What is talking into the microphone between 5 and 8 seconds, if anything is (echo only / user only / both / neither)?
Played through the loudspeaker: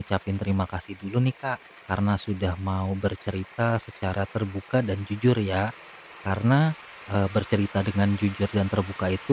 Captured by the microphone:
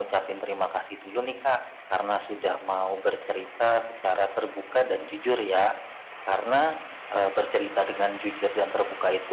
echo only